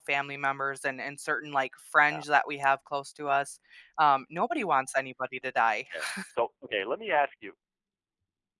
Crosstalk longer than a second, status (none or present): none